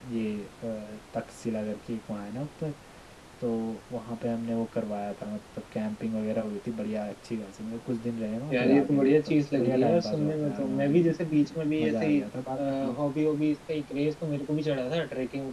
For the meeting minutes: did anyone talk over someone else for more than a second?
Yes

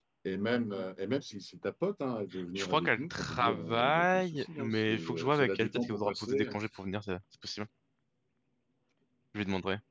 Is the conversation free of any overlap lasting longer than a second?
No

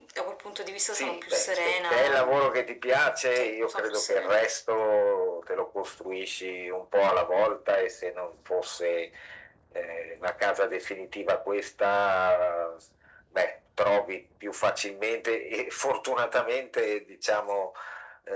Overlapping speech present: Yes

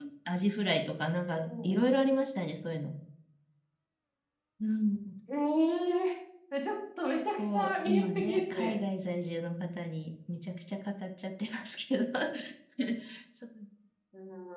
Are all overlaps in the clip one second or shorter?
No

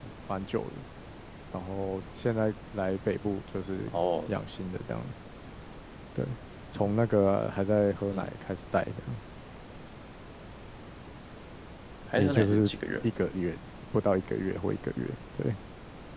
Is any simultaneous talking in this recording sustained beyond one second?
No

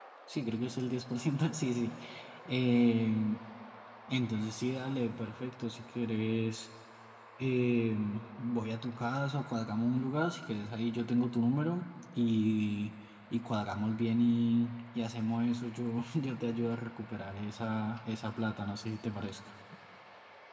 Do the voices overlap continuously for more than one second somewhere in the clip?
No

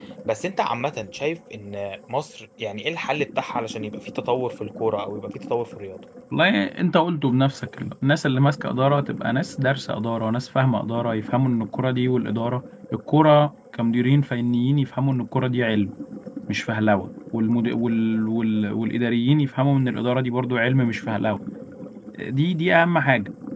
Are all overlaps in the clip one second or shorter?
Yes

